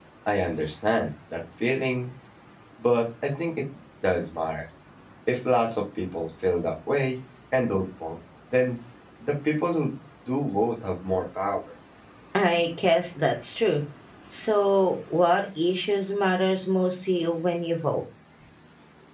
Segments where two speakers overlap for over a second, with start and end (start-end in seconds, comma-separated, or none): none